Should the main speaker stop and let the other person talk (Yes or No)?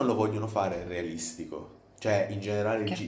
No